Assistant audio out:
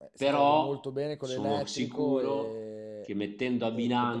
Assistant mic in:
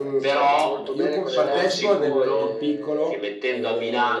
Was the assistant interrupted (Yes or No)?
Yes